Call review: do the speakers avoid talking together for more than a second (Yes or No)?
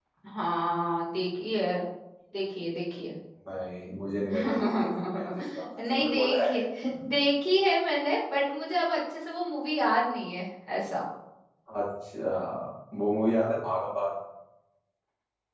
No